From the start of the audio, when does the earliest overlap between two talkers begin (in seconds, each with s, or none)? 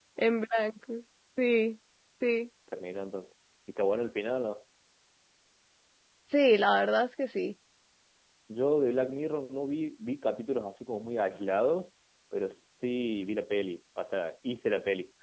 none